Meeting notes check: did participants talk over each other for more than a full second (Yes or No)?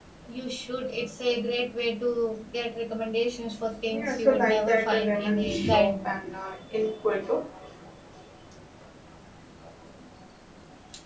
Yes